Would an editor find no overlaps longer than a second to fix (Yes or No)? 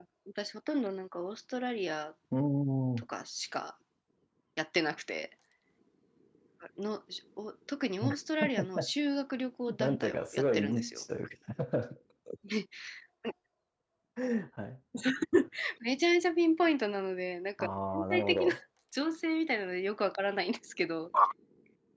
No